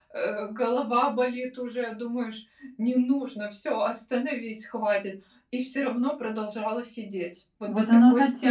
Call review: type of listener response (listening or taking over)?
taking over